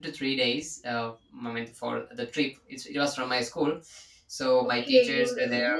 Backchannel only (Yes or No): No